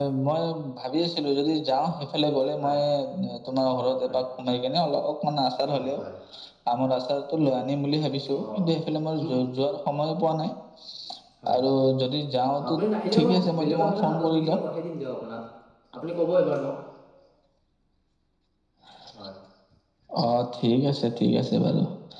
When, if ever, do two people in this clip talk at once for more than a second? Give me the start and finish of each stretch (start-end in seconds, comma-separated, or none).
13.1-14.6